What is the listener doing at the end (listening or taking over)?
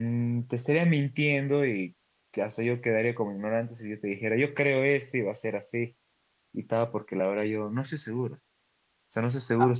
listening